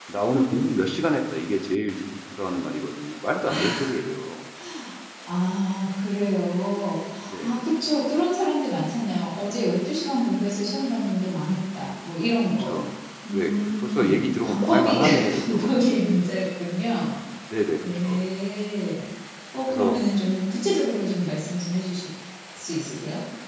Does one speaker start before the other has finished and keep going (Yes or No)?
Yes